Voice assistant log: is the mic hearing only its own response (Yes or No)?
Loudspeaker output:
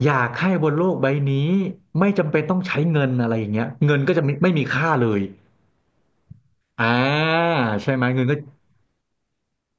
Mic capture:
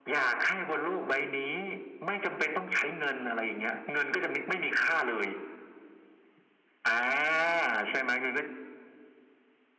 Yes